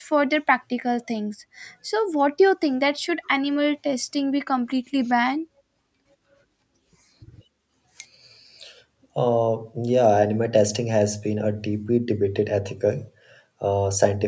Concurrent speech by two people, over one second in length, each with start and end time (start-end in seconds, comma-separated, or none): none